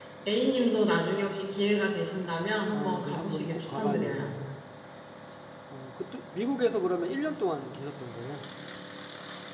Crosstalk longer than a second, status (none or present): present